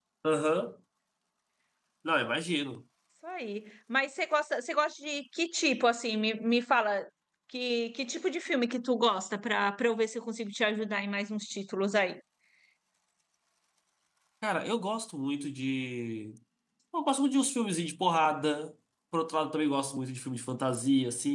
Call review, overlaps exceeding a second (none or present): none